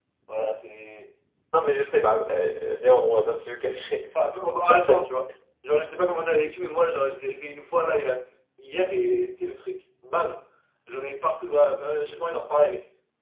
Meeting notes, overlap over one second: none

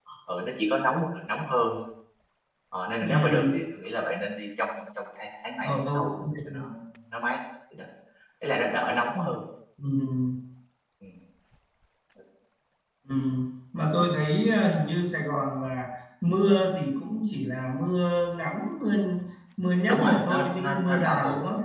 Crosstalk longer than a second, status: present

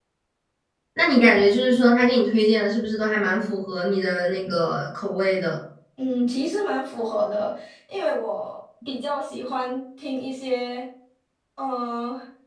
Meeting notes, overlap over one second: none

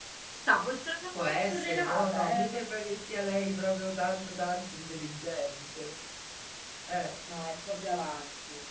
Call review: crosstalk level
present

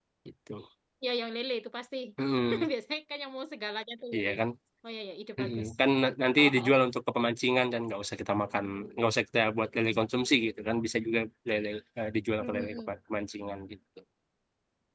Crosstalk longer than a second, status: none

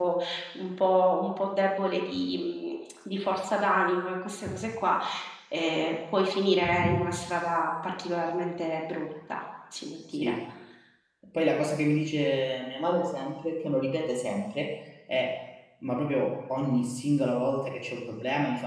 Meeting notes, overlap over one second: none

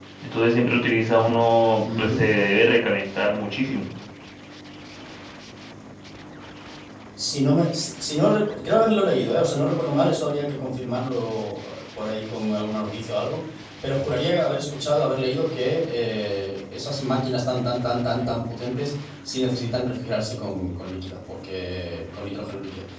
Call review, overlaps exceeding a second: none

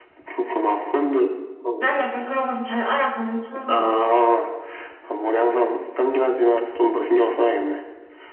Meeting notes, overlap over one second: none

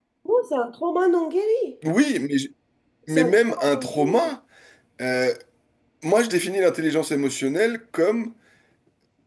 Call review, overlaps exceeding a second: present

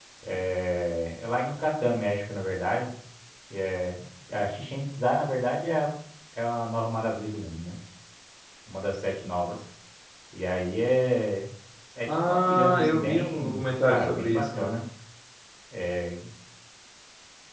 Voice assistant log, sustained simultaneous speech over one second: present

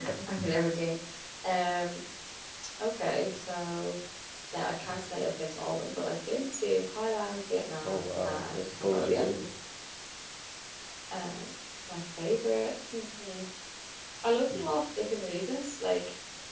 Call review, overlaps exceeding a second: present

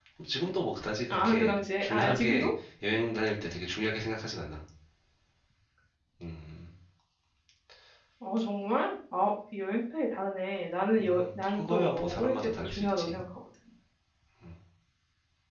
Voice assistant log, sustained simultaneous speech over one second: present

